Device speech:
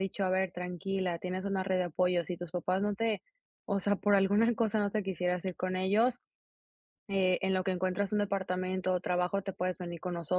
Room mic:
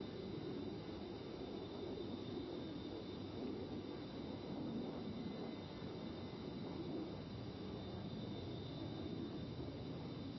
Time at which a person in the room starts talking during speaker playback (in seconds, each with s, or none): none